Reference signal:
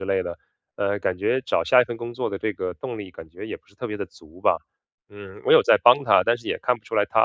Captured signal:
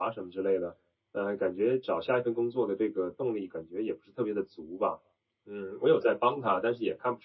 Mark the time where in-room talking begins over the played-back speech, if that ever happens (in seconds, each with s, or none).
none